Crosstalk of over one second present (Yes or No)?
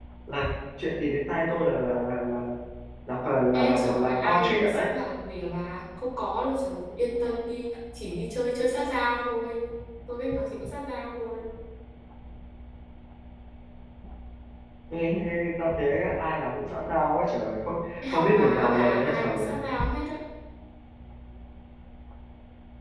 Yes